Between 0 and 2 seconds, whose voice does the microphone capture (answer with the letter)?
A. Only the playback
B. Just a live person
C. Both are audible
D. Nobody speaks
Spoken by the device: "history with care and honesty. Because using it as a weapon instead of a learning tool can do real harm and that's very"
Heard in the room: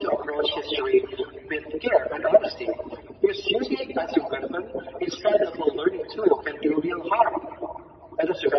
A